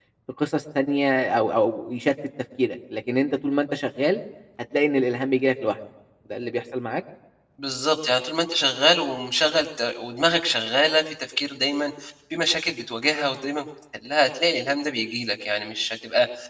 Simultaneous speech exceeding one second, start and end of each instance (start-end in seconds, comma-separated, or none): none